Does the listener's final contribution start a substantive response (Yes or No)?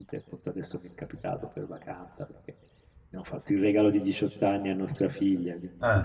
No